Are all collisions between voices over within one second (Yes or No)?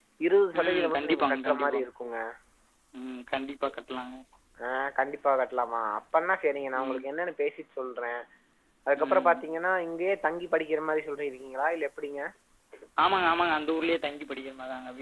No